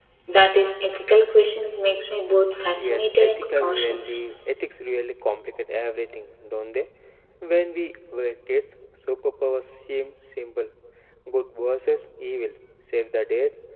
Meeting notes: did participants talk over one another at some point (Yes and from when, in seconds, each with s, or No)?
Yes, from 2.8 s